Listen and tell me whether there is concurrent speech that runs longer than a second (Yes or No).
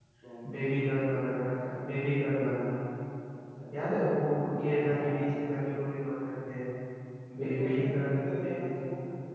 Yes